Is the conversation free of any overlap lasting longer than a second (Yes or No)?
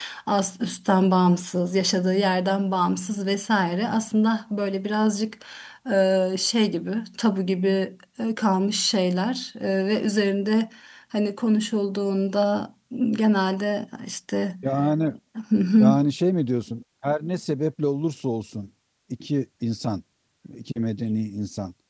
Yes